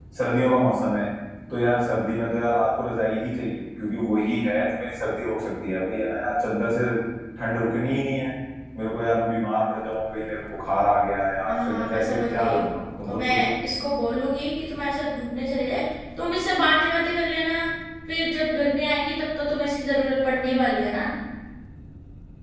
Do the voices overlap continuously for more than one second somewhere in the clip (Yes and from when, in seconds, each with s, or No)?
Yes, from 11.4 s